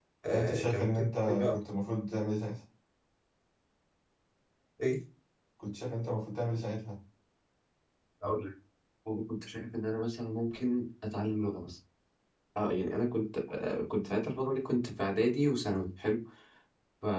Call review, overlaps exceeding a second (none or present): present